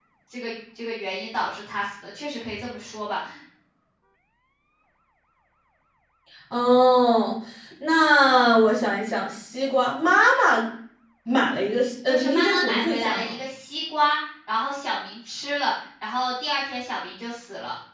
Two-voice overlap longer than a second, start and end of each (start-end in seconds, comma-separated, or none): 12.1-13.3